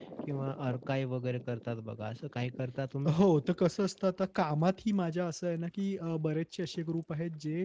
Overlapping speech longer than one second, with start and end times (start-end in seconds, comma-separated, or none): none